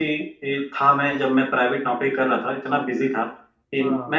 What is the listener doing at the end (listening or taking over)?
listening